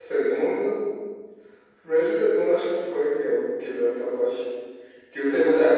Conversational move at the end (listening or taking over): listening